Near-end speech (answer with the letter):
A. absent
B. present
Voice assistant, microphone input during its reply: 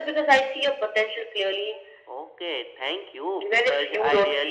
A